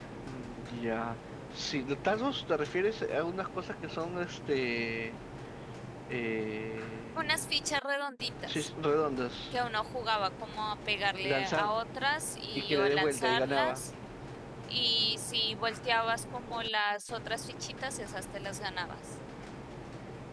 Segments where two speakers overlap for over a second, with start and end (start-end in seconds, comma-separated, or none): 12.6-13.8